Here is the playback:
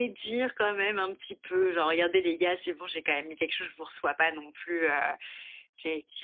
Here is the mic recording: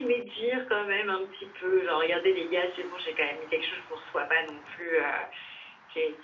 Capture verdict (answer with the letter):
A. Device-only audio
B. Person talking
A